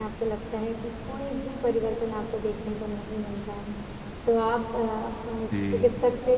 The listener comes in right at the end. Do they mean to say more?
No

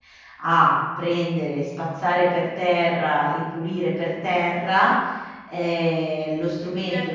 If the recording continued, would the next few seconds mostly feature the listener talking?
Yes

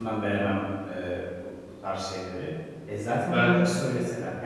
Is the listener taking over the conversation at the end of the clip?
No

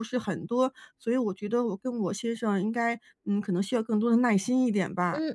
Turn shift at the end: Yes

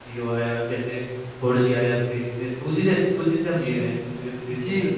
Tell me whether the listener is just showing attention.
Yes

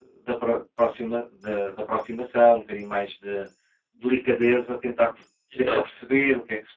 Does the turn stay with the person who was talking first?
Yes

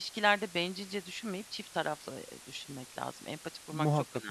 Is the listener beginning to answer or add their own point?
Yes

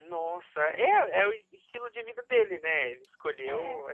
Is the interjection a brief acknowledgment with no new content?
Yes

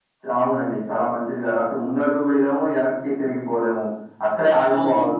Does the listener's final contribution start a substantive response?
No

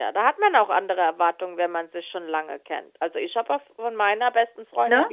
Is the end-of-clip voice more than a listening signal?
No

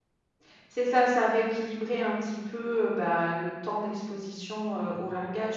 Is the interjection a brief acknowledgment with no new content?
Yes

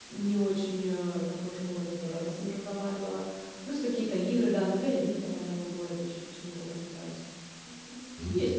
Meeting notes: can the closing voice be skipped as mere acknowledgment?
No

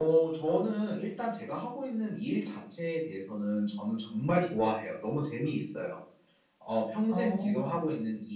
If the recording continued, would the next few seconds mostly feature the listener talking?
No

